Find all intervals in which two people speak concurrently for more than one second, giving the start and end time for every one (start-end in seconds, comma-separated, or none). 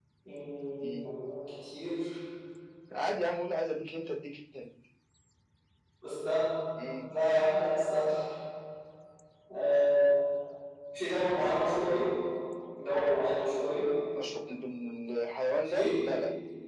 none